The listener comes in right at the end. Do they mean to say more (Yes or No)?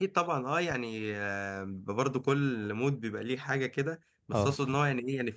No